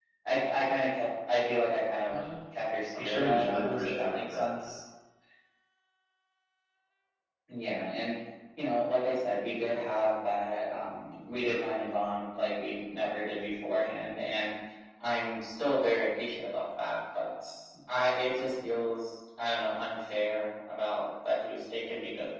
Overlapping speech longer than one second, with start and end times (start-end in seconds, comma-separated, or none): 2.9-4.7